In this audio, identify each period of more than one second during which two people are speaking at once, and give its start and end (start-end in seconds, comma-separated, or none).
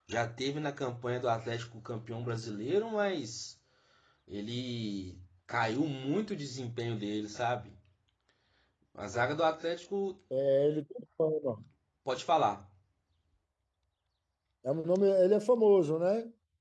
none